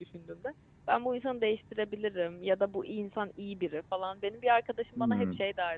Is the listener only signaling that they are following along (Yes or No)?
Yes